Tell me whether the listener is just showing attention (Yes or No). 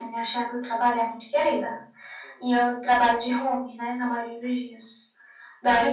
Yes